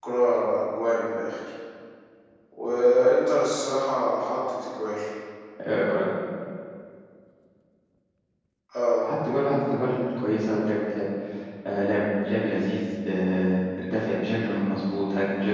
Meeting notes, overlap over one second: none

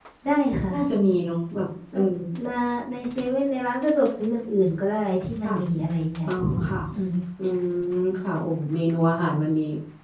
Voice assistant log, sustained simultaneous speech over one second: none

